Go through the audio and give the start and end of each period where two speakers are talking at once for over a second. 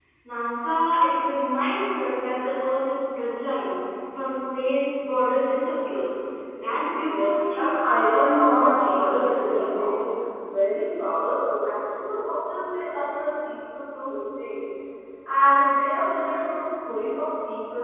7.1-9.9

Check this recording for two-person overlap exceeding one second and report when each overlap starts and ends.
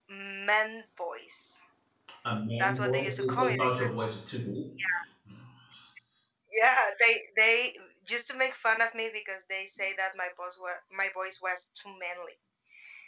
2.6-3.9

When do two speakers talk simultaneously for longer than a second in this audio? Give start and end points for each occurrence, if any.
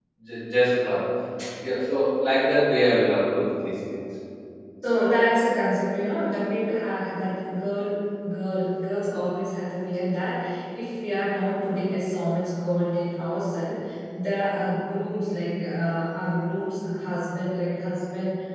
none

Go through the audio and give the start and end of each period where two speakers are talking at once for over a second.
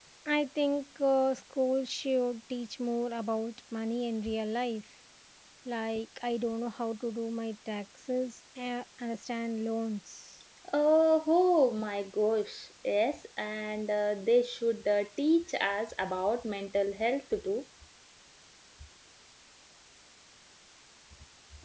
none

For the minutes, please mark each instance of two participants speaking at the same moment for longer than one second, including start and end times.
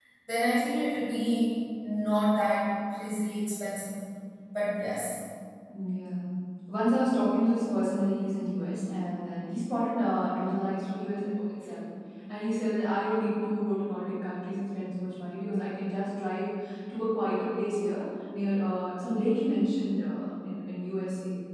none

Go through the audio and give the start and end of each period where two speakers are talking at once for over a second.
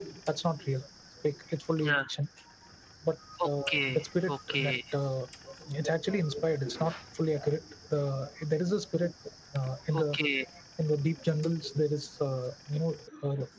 3.4-4.7

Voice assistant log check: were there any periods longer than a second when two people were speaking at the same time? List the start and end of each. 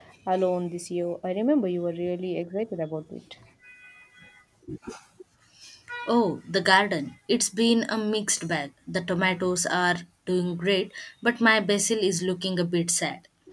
none

